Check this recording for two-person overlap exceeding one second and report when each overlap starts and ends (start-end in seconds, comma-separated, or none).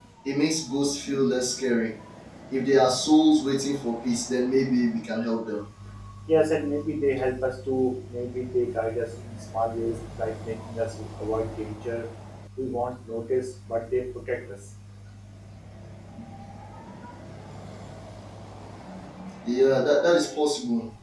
none